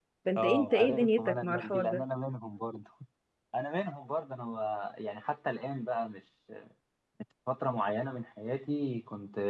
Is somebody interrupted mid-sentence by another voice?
Yes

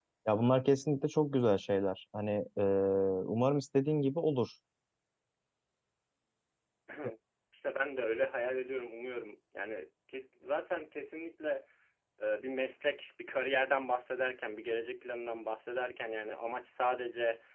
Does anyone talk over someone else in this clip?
No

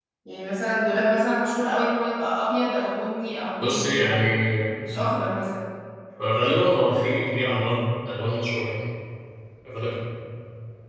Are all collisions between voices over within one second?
Yes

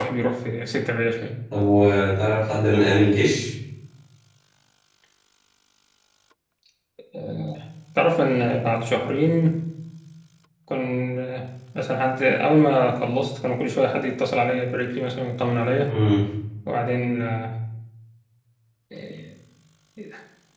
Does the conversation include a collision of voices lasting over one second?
No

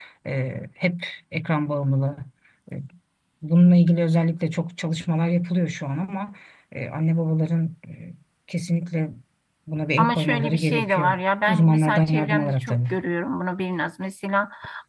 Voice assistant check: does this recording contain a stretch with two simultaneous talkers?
Yes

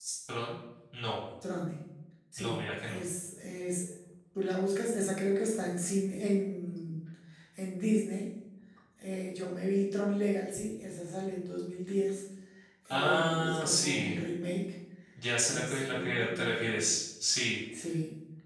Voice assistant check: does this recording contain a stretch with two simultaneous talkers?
Yes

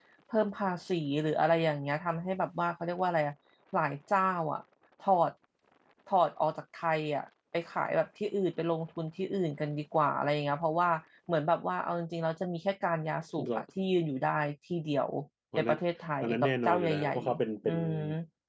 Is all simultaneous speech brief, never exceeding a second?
No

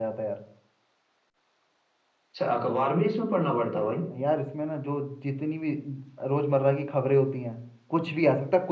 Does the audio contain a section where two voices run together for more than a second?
No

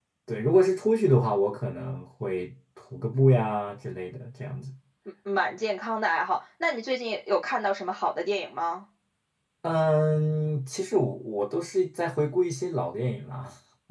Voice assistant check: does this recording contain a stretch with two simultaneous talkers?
No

